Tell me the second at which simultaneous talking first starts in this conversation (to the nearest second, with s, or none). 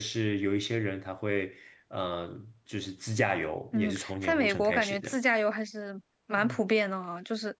4 s